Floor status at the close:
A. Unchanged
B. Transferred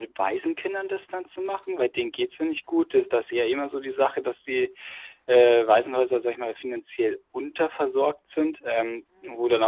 A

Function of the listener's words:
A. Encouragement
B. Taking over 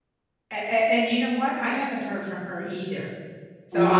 A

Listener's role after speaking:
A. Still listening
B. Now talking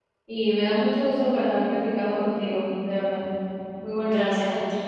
B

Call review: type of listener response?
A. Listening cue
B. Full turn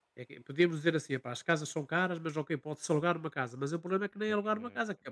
A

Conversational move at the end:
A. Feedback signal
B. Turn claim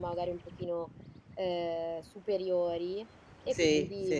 A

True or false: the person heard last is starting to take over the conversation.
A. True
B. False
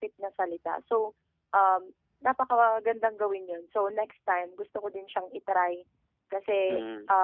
B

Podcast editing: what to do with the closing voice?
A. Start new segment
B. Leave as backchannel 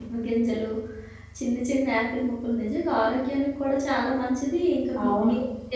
B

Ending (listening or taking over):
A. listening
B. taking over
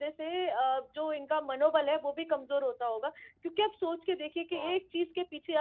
A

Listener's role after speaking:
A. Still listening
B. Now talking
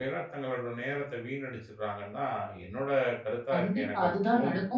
B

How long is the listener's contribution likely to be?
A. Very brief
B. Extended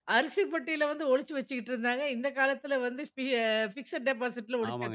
B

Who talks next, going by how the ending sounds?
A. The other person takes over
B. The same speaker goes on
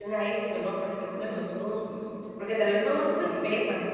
B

